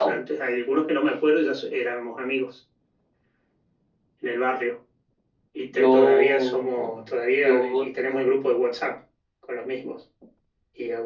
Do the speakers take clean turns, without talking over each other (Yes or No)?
No